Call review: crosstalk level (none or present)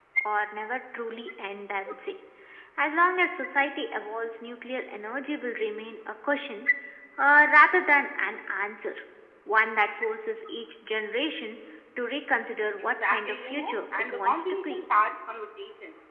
present